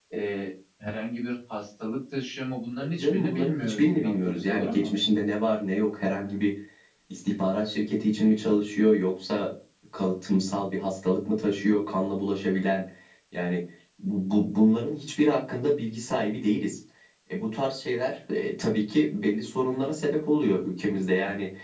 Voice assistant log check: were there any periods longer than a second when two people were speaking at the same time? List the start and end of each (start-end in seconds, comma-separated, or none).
2.8-4.9